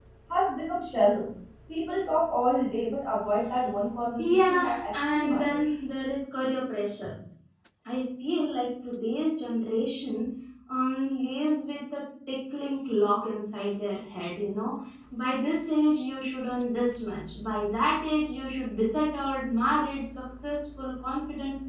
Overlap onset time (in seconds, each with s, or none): 4.2 s